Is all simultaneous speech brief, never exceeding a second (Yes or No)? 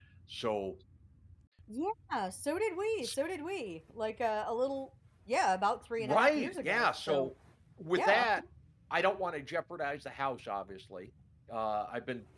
No